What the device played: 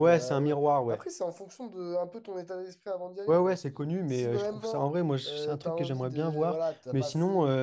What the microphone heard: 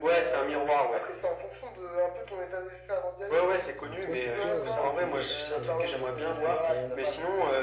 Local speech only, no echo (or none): Euh, toi, c'est quoi un peu le pays là que tu t'aimerais faire euh, avec des potes ou